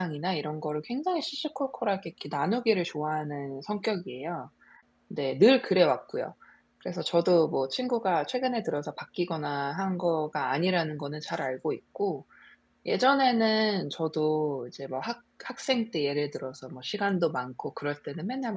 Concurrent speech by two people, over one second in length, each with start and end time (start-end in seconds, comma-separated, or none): none